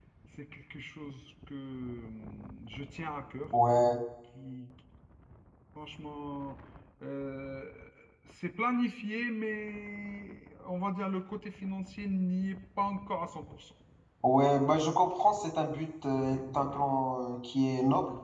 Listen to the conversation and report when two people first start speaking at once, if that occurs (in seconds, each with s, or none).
none